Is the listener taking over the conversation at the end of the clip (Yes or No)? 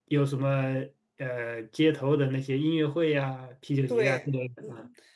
Yes